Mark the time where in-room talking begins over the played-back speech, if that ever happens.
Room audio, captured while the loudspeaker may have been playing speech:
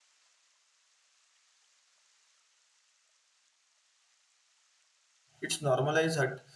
5.4 s

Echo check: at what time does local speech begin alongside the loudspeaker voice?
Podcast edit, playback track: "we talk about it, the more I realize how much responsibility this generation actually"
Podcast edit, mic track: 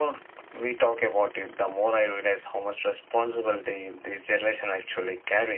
none

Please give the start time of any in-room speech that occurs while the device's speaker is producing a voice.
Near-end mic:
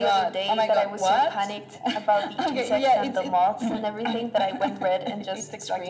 none

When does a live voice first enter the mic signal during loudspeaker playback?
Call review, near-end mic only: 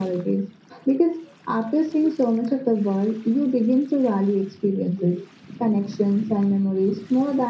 none

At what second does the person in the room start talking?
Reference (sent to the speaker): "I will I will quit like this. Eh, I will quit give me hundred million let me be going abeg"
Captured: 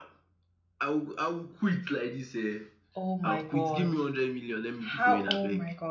3.0 s

